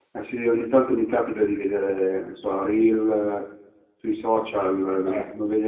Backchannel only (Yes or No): Yes